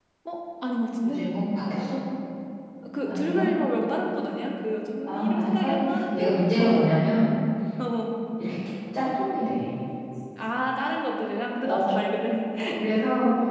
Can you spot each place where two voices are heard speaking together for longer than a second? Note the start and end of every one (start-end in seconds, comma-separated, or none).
5.0-6.8